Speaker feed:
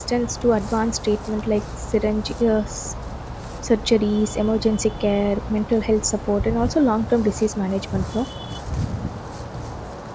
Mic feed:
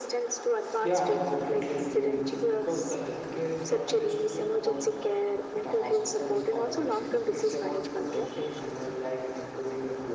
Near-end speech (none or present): present